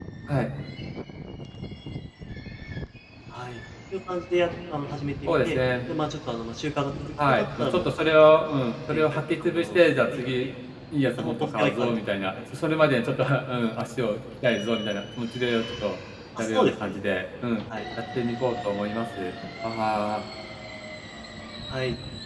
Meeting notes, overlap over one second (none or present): present